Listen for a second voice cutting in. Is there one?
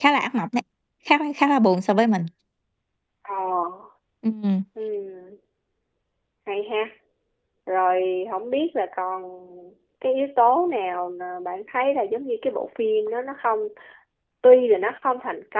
No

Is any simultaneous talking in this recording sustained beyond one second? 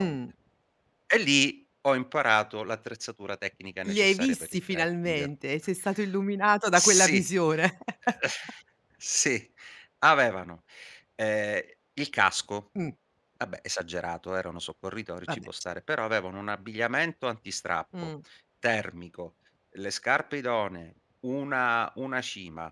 Yes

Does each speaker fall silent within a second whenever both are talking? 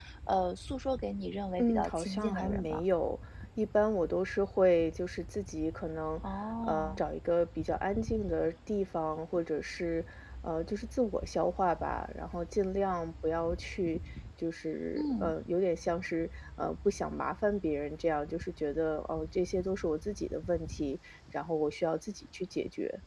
No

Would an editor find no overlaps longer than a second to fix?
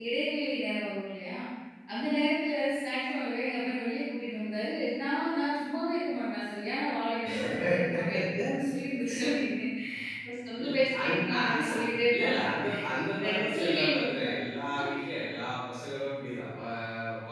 No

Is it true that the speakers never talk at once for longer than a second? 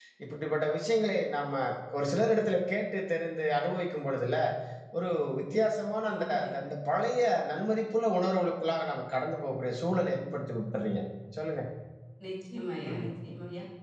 Yes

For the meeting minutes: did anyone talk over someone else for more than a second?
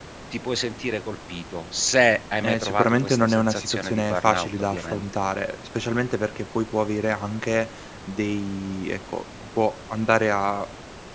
Yes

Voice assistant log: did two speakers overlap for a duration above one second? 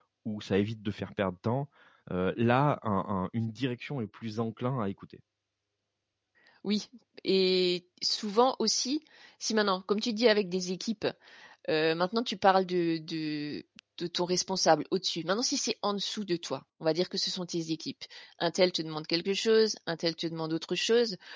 No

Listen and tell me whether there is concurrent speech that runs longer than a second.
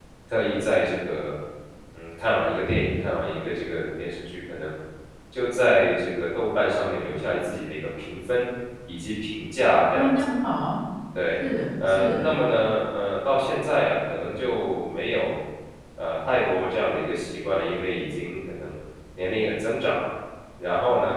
No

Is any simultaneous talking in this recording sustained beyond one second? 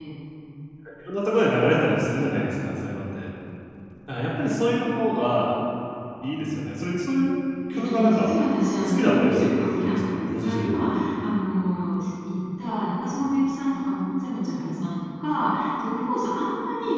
Yes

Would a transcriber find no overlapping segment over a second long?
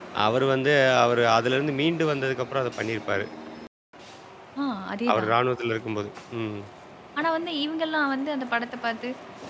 Yes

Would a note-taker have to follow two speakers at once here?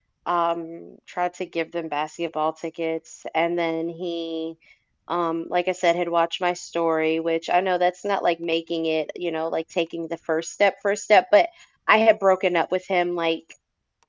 No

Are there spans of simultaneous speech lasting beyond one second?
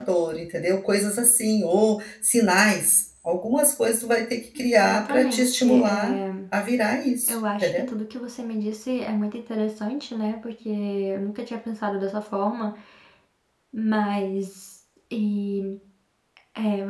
Yes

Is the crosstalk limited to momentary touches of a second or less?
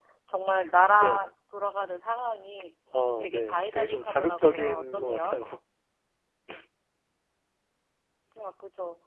No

